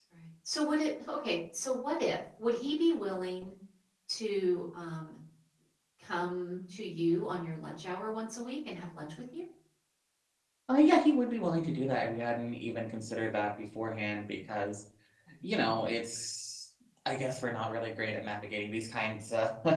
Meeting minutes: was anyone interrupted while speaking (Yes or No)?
No